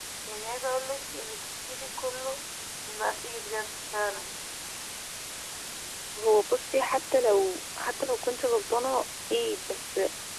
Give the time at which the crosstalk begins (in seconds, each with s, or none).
none